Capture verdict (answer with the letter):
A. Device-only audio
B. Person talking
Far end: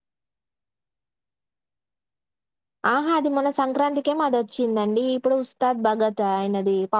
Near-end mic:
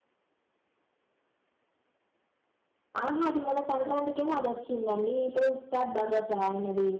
A